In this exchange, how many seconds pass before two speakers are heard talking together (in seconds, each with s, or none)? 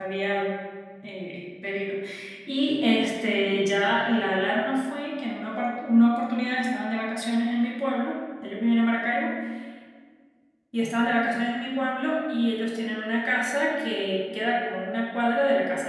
none